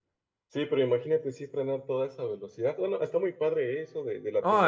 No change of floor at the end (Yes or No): No